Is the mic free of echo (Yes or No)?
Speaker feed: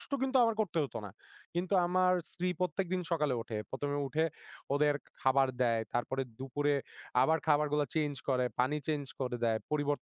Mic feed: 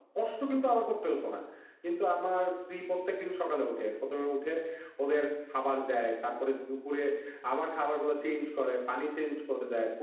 No